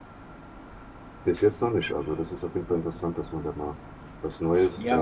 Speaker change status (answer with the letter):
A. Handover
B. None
A